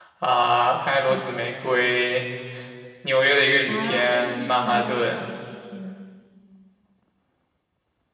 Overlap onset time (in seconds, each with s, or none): 3.7 s